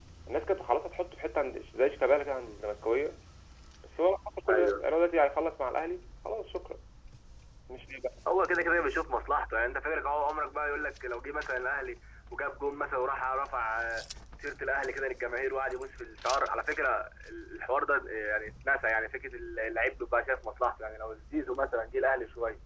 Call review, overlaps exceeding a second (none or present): none